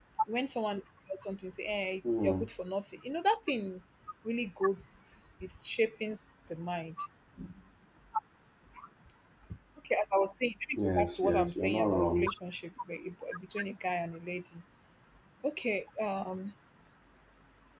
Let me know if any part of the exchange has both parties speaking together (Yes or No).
Yes